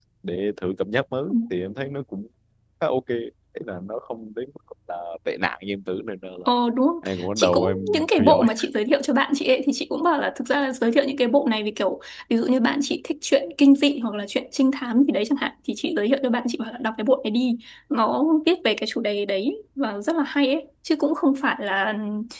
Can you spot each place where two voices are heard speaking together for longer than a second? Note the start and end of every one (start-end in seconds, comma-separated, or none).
7.0-8.5